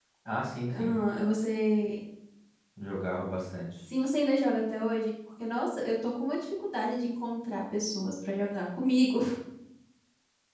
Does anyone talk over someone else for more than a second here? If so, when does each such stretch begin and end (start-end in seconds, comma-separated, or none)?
none